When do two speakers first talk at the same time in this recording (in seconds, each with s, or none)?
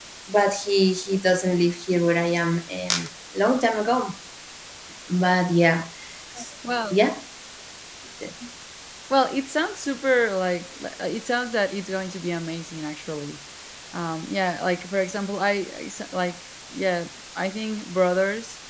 none